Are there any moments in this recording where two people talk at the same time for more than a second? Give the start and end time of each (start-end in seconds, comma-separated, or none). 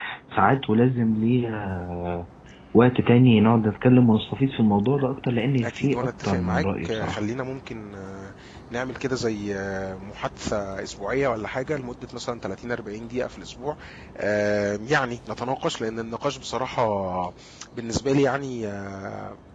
5.6-7.2